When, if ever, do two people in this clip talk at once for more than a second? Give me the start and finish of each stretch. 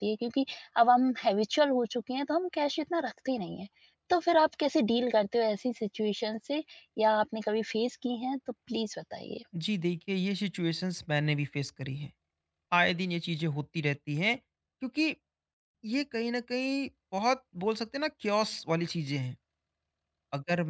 none

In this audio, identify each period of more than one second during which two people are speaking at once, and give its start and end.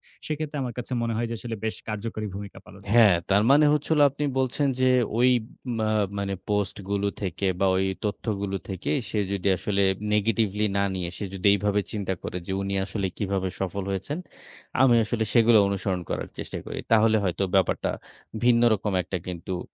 none

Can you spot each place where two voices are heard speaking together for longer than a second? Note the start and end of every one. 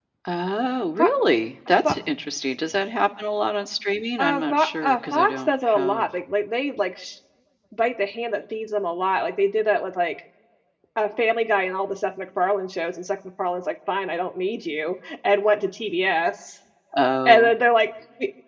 4.2-6.1

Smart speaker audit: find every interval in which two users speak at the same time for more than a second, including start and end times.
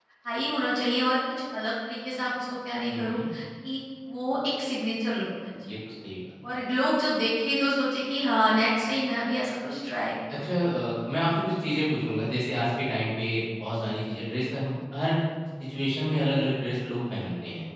none

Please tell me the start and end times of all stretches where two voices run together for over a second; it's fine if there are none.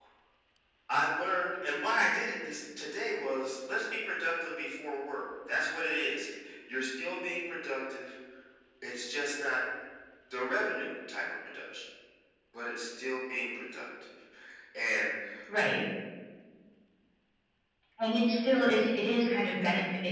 none

